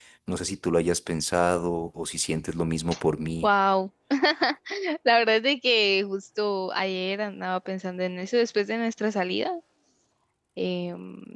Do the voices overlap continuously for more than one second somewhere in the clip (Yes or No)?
No